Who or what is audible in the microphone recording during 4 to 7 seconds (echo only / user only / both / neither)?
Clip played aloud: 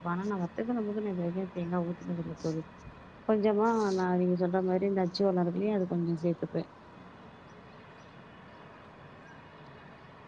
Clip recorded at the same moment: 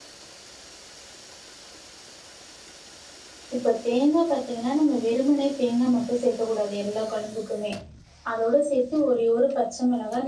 user only